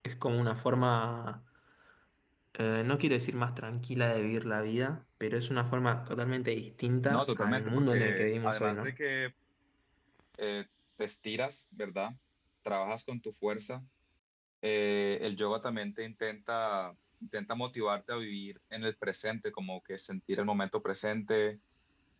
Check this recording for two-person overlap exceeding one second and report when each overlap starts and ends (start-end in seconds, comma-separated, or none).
7.1-9.0